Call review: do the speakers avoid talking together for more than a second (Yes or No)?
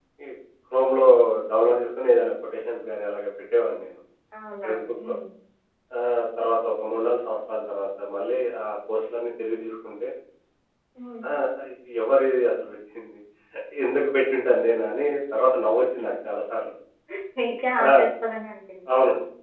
Yes